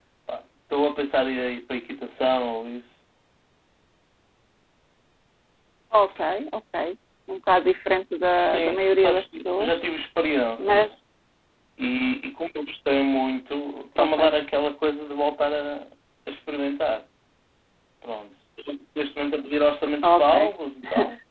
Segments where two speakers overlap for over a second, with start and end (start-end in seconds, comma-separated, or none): 8.4-9.8